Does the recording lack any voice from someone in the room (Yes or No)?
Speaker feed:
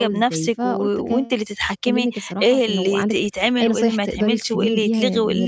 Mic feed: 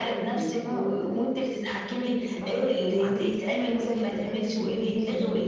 Yes